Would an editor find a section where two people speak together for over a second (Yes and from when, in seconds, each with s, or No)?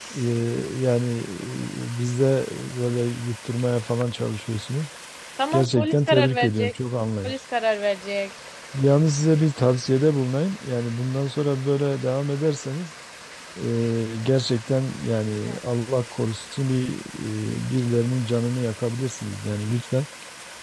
Yes, from 5.5 s